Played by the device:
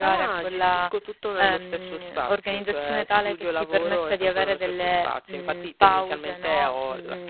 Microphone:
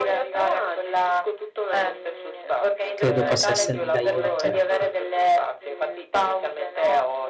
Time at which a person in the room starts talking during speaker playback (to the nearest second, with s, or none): 3 s